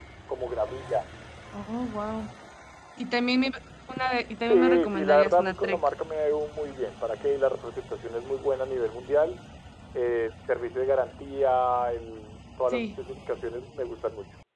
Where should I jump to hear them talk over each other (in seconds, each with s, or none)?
4.5 s